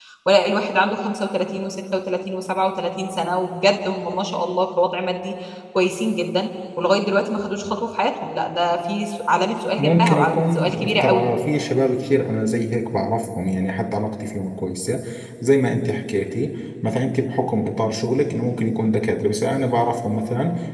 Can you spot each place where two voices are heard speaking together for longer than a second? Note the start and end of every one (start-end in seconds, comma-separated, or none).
9.8-11.3